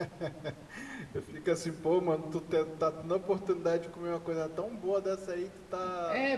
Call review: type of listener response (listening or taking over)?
taking over